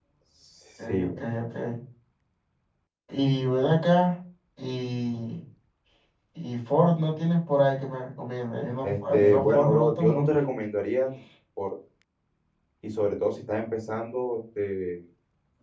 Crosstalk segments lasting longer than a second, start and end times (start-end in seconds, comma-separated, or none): 8.8-10.4